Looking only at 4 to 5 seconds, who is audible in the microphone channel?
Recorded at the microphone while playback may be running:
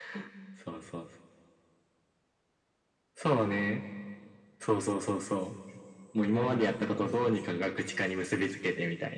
echo only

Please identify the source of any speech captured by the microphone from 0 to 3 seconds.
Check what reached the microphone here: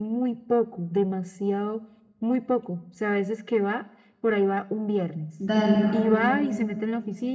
echo only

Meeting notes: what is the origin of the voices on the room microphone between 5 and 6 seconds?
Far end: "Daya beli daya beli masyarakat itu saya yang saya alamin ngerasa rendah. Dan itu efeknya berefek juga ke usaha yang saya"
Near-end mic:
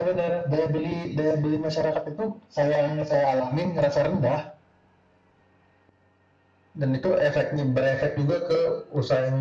neither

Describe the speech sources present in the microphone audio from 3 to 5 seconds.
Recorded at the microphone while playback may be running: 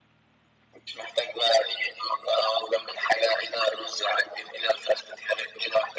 echo only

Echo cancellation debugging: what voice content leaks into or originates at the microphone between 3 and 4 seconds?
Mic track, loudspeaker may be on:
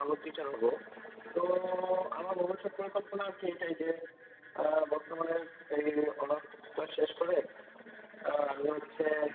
echo only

